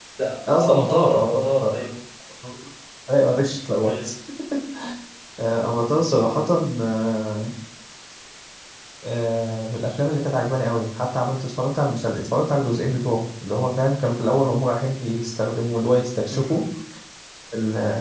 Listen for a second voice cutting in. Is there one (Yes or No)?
Yes